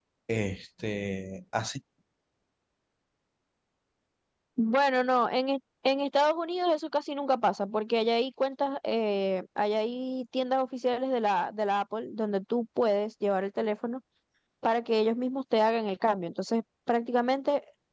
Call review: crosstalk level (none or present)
none